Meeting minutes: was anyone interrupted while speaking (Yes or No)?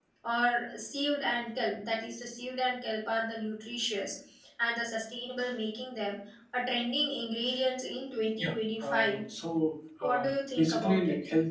Yes